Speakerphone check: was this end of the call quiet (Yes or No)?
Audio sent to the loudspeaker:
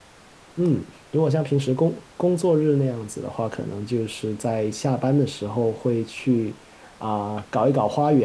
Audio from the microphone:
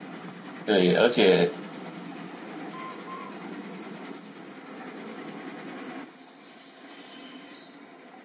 No